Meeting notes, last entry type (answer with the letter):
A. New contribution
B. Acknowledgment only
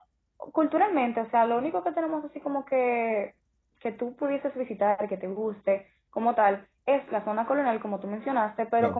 B